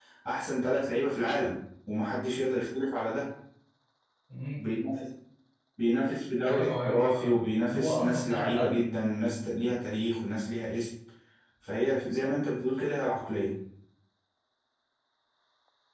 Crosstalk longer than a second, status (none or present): present